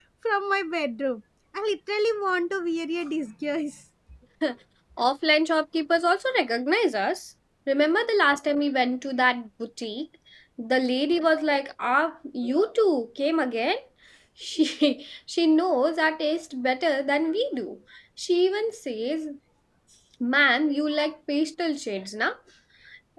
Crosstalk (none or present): none